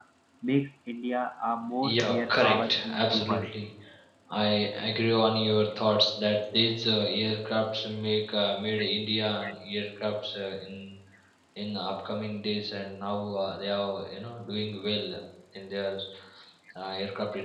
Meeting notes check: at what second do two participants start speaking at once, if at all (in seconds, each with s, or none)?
1.8 s